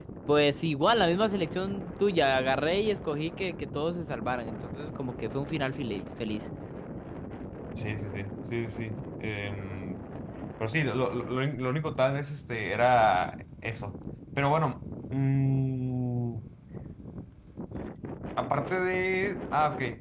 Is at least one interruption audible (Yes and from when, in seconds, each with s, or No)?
No